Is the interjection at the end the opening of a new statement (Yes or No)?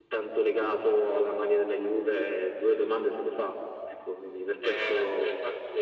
Yes